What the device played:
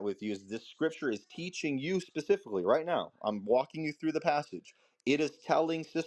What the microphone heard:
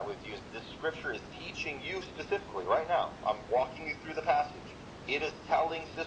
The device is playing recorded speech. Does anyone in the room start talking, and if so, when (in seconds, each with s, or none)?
none